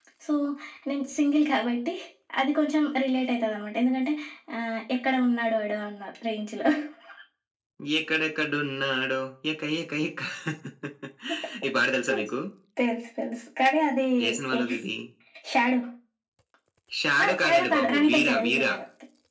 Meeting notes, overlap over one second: present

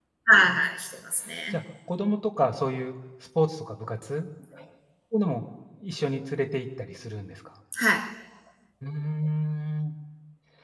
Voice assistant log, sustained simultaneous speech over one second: none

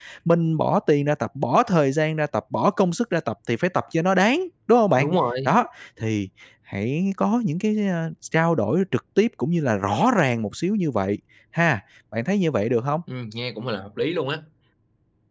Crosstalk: none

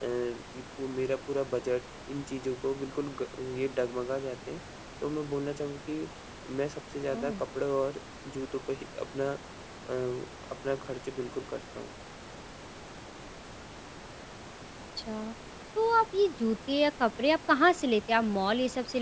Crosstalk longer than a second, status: none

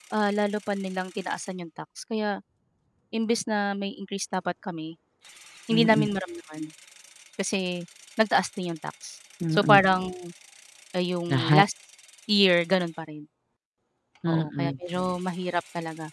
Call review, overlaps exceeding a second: none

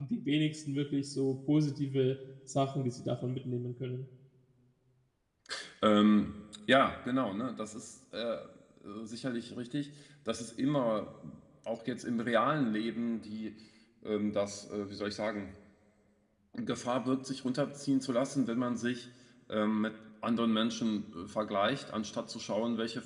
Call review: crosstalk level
none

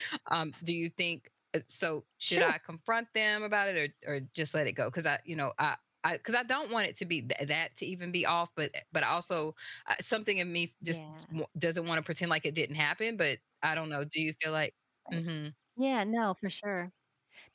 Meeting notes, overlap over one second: none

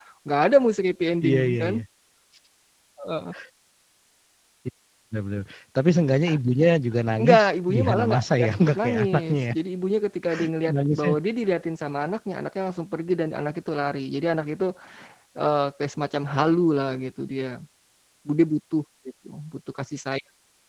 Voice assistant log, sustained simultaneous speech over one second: present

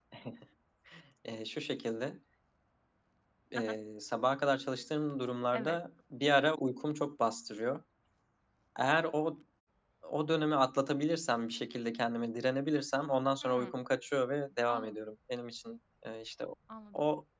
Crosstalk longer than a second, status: none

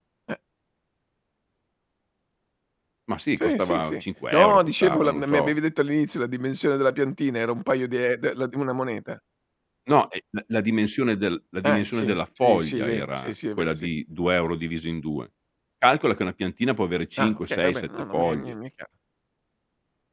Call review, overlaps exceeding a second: present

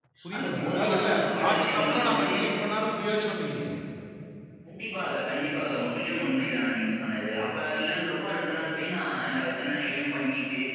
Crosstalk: present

